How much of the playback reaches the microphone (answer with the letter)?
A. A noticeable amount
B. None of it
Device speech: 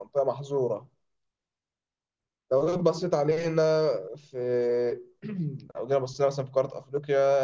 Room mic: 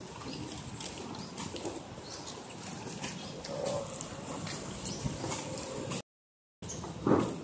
B